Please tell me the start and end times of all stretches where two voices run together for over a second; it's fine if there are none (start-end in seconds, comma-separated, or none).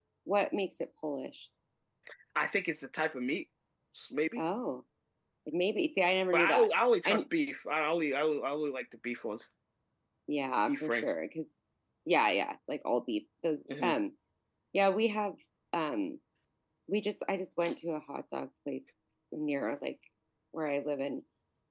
none